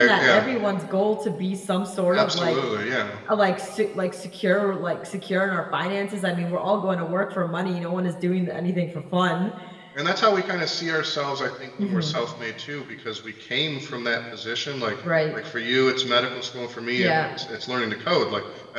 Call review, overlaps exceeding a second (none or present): none